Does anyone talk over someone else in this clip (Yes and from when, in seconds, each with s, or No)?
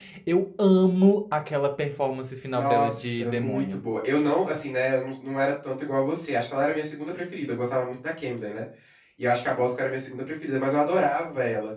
Yes, from 2.6 s